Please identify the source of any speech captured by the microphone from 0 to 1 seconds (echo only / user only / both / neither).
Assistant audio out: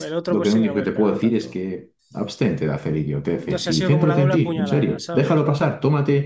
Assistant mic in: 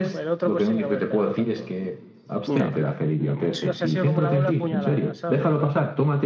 echo only